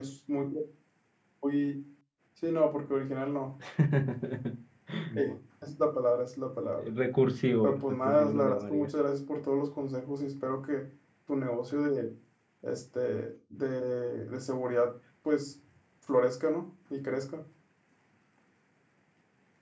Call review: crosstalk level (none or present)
present